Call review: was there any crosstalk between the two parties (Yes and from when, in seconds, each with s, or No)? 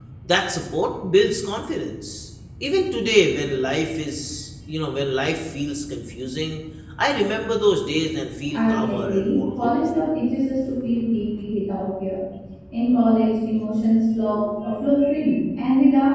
Yes, from 8.5 s